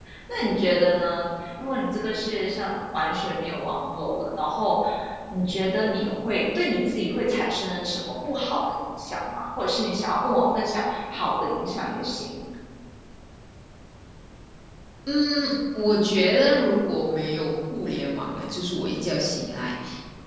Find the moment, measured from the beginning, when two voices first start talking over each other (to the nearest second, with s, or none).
none